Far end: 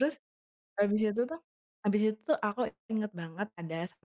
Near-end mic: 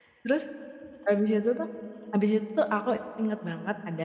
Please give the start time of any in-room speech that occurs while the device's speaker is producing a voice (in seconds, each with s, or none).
none